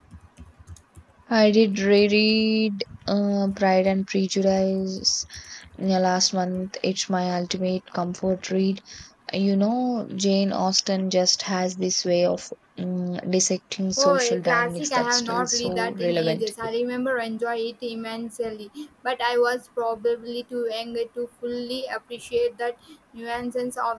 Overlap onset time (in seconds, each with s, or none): 13.9 s